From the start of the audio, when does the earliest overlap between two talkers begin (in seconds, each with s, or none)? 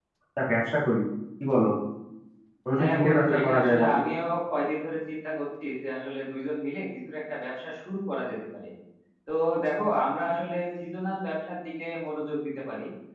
2.8 s